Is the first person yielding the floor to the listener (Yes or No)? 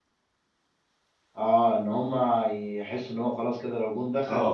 Yes